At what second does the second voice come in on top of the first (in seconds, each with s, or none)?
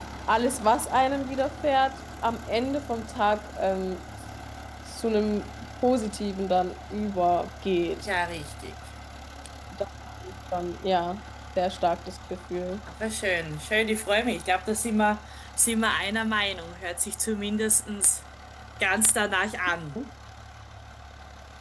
none